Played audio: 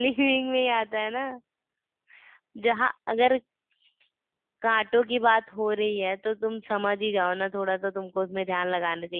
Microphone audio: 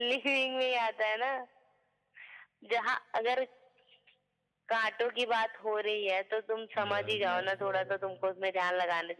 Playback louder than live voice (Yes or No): Yes